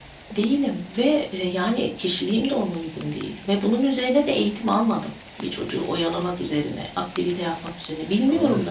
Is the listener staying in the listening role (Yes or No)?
No